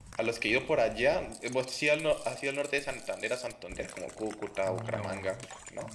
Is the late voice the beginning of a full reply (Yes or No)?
Yes